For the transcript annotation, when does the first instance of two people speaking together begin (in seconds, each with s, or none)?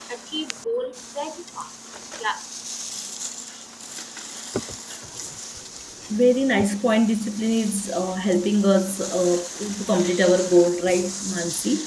none